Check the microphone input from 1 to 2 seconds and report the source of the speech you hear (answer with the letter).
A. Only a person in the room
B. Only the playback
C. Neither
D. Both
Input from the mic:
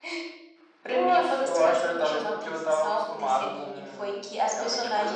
B